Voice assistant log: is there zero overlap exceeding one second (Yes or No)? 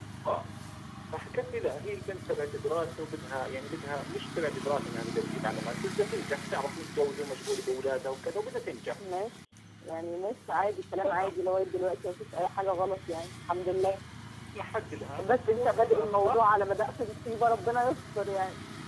No